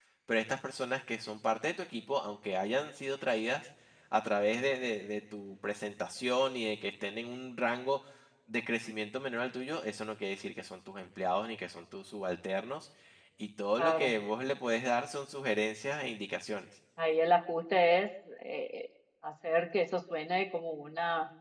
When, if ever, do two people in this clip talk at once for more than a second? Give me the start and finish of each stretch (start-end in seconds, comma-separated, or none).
none